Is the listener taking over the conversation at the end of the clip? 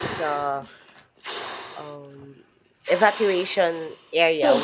No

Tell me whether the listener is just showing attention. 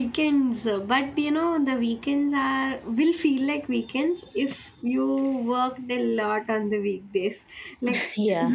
Yes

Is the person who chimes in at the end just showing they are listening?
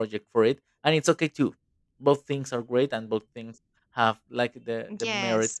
No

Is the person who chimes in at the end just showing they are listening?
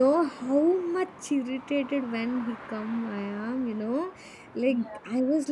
Yes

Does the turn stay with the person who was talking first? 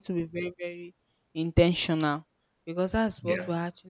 Yes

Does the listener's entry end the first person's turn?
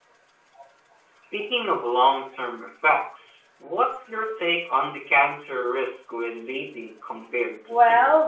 Yes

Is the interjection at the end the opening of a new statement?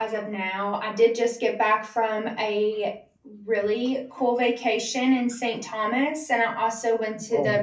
No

